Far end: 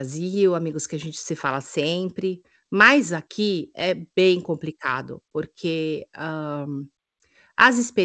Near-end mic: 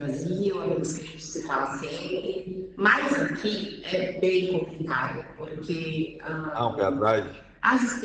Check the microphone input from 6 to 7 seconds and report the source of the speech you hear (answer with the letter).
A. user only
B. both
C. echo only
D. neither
B